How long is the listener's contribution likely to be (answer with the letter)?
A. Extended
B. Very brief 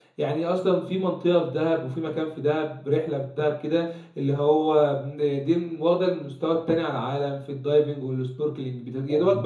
B